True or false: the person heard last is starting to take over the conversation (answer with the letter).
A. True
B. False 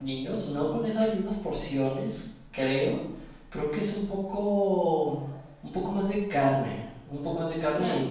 A